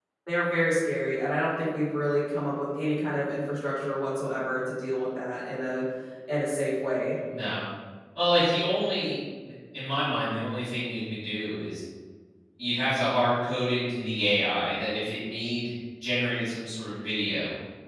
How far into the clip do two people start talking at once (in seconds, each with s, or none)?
none